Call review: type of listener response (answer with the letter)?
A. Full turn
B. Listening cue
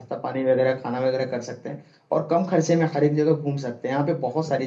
B